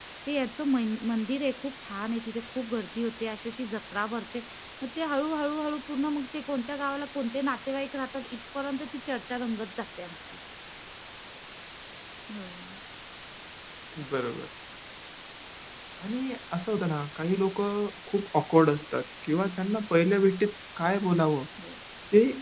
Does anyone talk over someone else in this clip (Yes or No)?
No